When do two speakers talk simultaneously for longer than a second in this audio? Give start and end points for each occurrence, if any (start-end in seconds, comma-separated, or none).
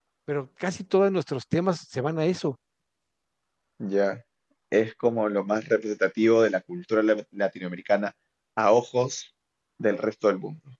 none